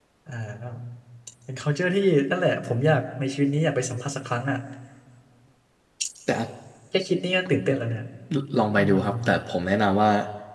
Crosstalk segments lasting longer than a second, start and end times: none

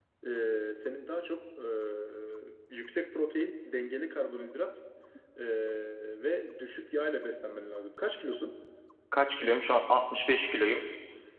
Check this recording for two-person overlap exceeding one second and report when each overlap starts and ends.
none

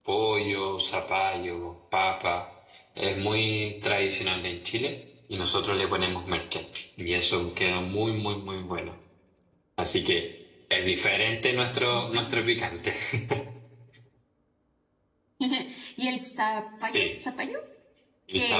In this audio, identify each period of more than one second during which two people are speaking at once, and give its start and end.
none

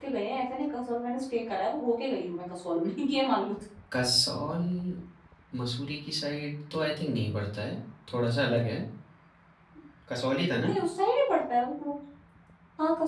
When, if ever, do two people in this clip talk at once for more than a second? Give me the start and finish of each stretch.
none

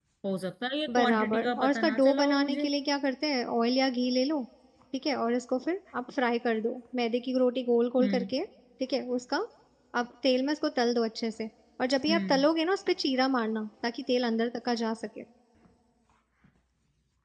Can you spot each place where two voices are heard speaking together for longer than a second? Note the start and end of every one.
1.0-2.7

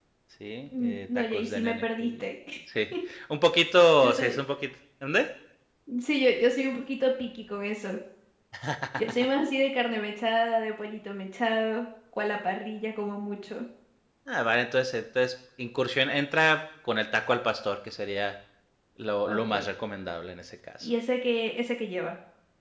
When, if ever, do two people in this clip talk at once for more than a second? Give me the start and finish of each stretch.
0.8-2.2

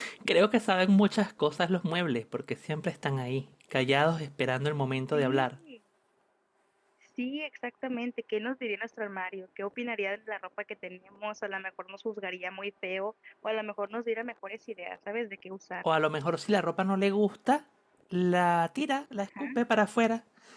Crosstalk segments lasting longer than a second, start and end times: none

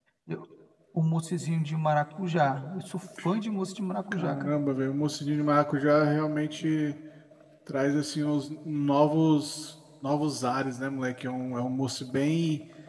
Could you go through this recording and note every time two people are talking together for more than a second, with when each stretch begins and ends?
none

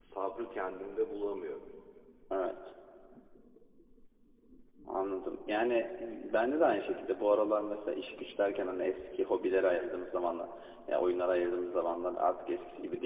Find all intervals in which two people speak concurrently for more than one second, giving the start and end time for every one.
none

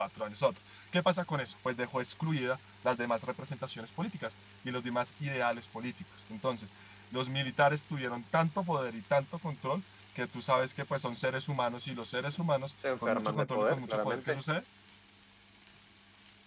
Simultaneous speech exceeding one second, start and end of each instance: 13.1-14.4

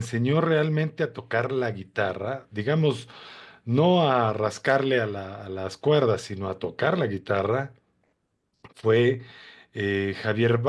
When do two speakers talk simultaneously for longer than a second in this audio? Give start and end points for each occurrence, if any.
none

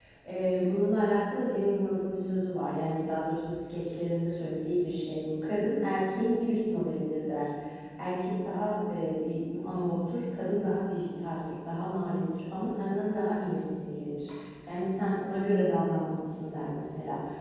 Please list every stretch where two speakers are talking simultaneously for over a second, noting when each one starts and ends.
none

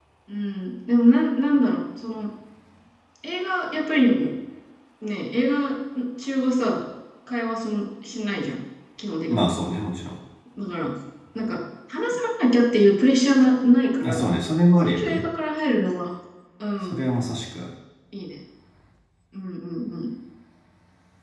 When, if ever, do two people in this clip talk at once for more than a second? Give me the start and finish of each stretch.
none

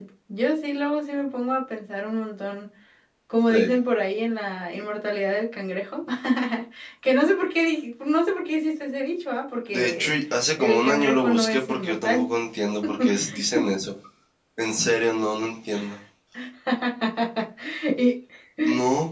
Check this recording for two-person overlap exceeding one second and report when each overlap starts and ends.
10.6-12.3

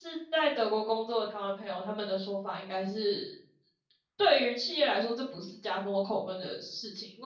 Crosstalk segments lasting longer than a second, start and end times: none

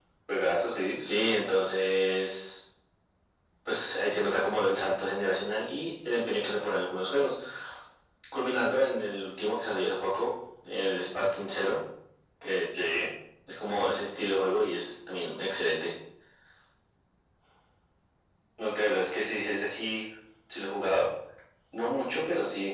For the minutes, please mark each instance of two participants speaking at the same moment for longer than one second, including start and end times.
none

